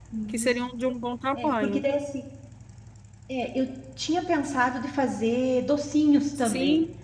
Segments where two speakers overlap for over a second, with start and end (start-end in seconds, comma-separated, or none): none